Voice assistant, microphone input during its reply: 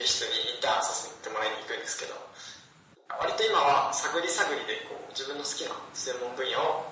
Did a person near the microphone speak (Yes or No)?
No